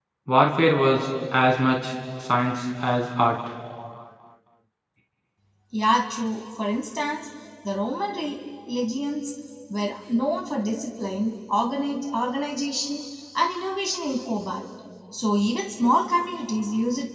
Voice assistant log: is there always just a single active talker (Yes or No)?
Yes